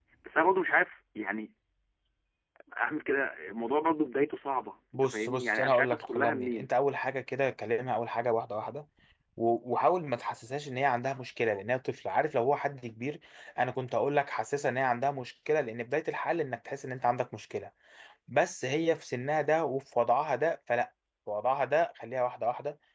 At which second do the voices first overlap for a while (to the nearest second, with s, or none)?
5 s